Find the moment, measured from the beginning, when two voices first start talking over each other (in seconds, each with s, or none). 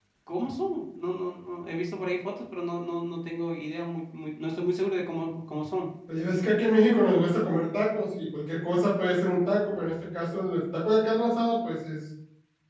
none